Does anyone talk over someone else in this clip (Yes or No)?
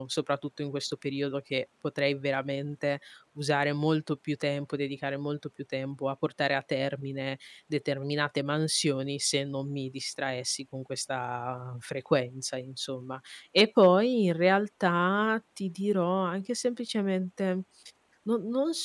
No